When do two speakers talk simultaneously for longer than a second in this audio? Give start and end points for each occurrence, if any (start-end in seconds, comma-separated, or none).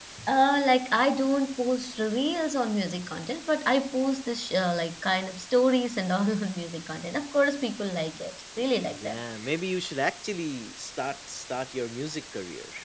none